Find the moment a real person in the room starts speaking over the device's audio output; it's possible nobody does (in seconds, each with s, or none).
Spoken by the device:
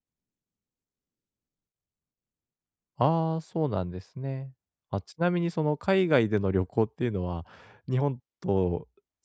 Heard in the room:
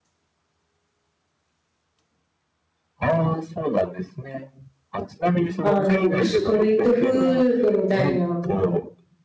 5.6 s